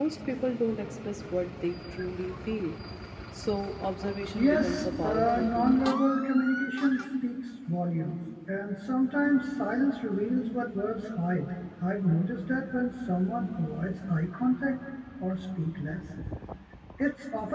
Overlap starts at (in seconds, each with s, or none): 4.3 s